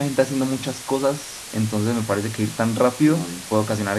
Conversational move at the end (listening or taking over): listening